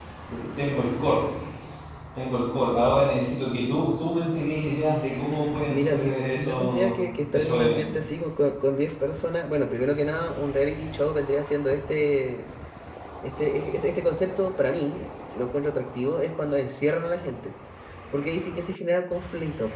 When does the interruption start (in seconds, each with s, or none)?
5.7 s